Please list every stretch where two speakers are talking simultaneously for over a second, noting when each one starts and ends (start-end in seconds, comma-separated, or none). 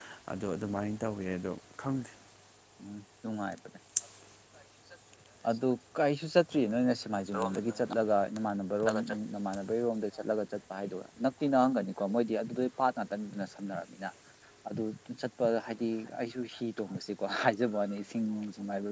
none